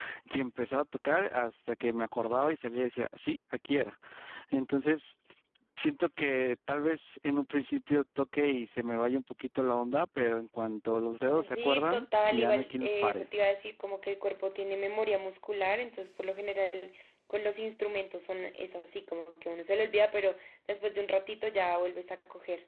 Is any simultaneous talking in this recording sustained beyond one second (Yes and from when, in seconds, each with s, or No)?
Yes, from 11.4 s